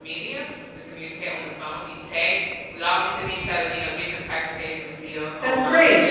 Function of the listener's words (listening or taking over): listening